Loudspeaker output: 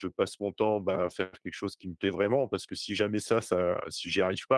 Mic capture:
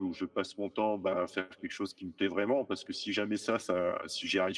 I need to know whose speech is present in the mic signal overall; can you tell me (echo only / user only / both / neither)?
echo only